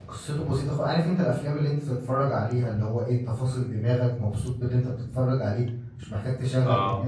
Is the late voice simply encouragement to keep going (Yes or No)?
Yes